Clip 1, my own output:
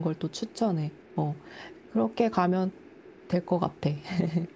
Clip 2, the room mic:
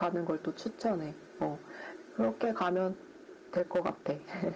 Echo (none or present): present